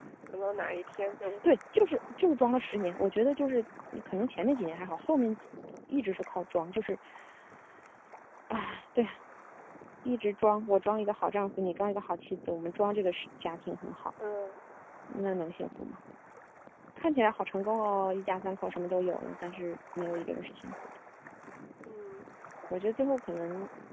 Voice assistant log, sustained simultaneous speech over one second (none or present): none